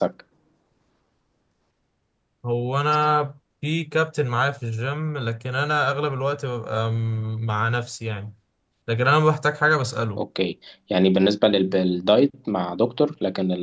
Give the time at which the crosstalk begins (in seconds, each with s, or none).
none